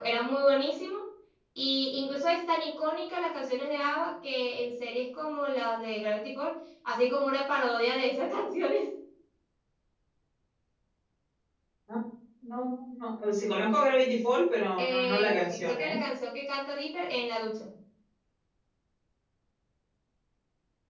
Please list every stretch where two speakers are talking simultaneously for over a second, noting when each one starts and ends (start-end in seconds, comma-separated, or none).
14.8-16.0